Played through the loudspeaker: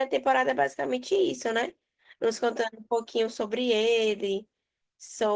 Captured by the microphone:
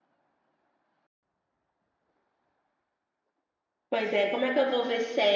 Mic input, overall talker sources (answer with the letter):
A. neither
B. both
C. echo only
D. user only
D